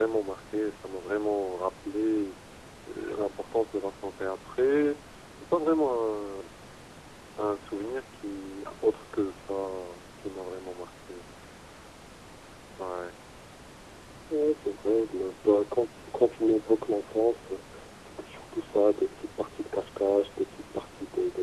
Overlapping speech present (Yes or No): No